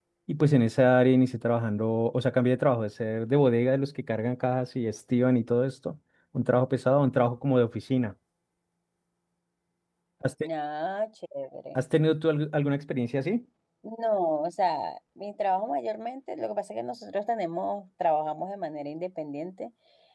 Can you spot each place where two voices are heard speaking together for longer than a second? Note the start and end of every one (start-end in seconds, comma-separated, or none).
none